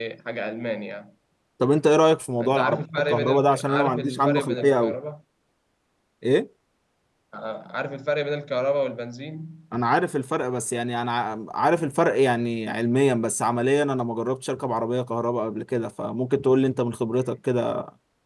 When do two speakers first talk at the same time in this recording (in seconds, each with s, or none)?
2.4 s